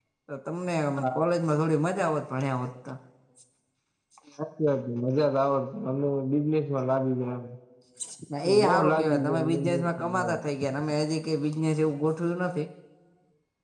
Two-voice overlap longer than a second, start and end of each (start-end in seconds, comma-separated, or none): 8.6-10.4